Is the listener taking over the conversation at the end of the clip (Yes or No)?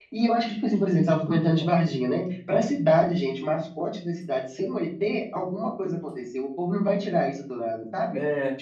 No